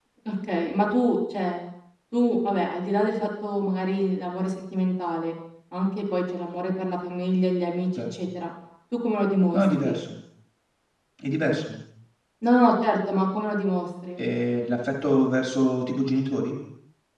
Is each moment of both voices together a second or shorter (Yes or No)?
Yes